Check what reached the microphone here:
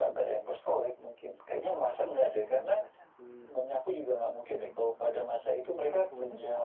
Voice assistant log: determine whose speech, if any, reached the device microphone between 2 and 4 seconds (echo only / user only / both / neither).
both